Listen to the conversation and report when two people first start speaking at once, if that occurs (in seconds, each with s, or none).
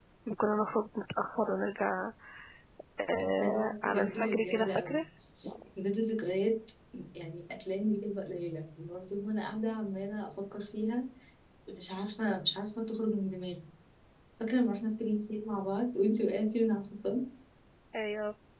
3.4 s